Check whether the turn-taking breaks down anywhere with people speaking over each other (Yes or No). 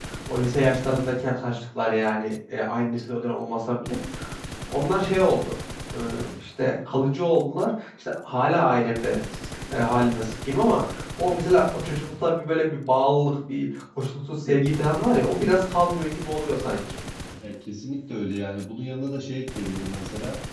No